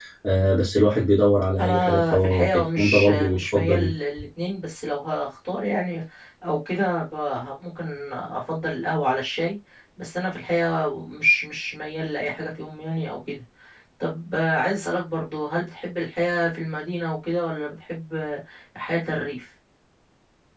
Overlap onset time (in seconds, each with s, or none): 1.6 s